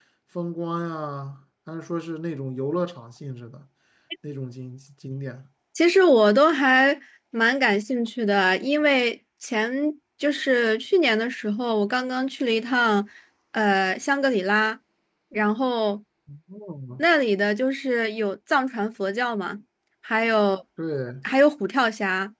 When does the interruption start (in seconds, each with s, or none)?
none